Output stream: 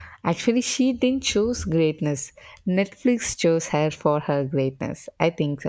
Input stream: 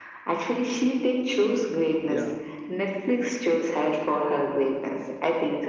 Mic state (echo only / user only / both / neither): both